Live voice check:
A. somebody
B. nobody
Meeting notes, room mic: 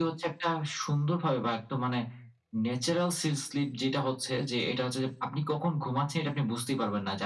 B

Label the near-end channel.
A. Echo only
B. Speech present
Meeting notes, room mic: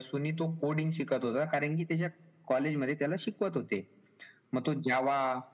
A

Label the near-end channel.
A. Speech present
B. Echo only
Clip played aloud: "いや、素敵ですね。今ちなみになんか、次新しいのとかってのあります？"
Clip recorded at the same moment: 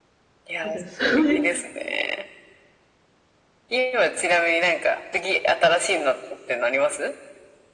A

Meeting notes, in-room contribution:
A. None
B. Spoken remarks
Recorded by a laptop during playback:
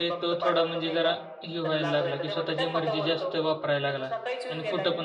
B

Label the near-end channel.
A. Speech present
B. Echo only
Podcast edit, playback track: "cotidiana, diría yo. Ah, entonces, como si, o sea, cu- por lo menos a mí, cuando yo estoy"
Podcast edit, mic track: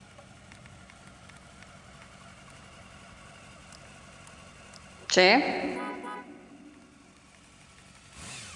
A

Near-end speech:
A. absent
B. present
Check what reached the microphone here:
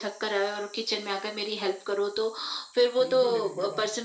B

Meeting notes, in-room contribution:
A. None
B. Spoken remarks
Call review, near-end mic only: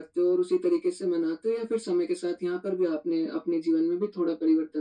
A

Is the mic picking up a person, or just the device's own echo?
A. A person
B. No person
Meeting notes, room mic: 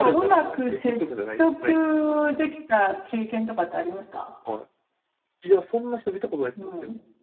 A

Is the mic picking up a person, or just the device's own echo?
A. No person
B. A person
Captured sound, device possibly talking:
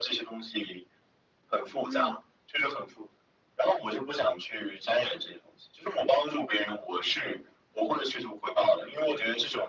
B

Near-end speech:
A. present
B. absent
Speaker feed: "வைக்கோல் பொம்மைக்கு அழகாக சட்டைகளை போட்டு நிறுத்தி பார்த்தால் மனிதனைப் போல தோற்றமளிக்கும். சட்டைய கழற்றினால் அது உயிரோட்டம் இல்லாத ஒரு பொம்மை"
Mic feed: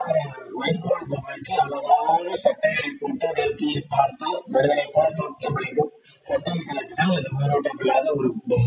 B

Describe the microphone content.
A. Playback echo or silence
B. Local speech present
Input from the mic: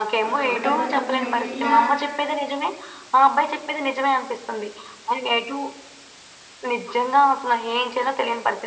B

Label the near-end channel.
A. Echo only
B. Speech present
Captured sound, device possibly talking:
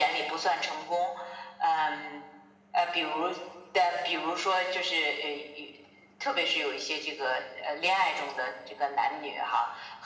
A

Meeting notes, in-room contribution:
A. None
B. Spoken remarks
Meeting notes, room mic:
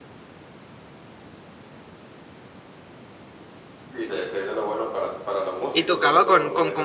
B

